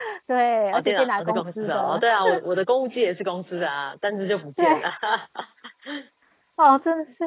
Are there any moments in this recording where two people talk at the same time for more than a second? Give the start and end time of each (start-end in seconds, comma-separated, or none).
0.7-2.0